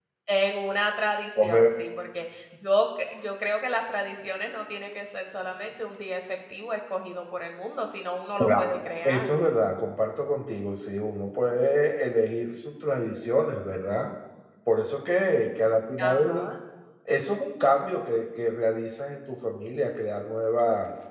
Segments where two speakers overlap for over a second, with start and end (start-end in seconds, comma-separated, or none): none